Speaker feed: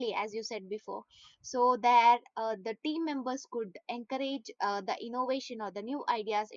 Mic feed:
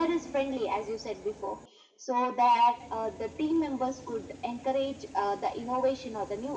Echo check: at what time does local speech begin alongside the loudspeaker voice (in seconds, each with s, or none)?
none